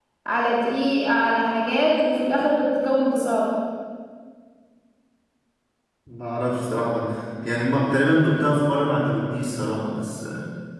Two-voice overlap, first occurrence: none

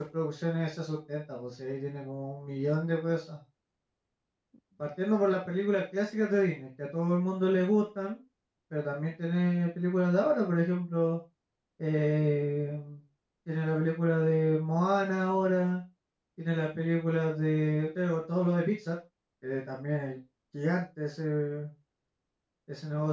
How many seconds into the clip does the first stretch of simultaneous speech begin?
none

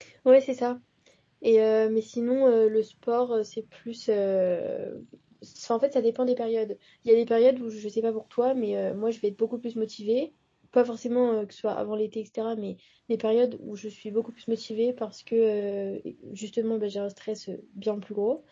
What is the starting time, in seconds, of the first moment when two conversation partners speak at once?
none

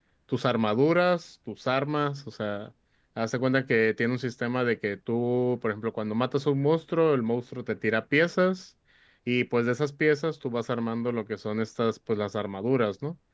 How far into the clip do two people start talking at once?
none

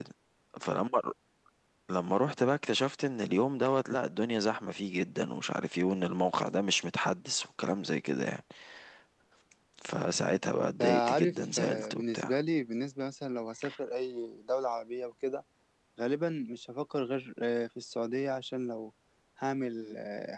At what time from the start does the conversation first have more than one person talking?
10.8 s

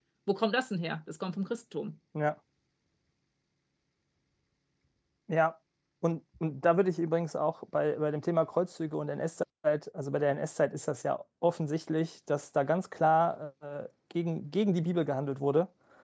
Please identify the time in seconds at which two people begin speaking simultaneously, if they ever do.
none

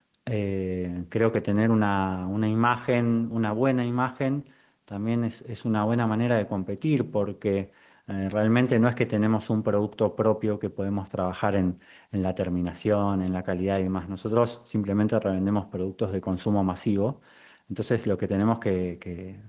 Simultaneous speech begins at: none

